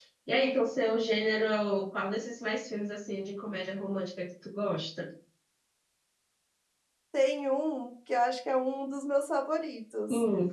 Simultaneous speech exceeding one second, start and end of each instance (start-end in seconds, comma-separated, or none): none